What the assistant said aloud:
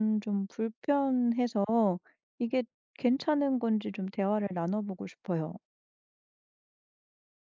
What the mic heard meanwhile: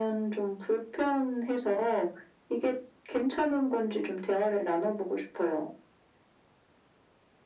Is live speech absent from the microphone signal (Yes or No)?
Yes